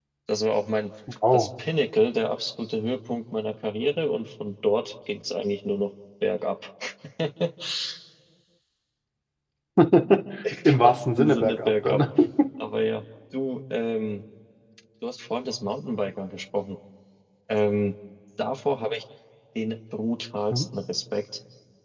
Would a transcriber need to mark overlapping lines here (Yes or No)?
Yes